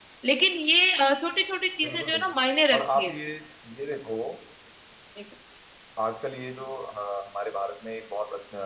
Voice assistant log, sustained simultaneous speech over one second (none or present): none